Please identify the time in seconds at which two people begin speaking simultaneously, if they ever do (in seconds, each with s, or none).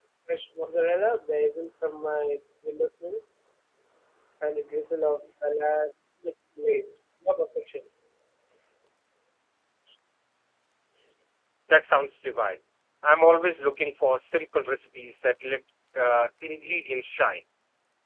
none